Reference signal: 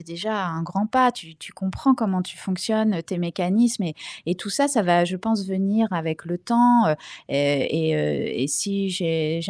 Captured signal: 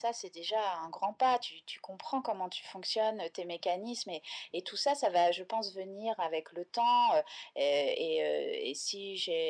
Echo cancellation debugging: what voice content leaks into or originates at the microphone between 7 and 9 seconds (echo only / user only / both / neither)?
echo only